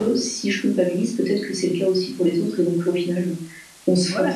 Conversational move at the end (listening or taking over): taking over